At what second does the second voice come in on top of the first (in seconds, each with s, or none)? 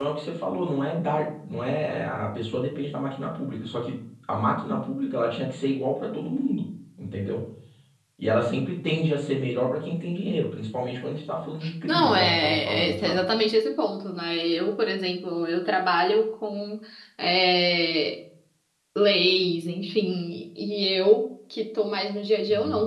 11.9 s